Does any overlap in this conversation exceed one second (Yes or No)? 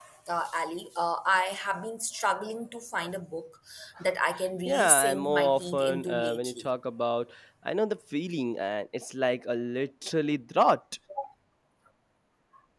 Yes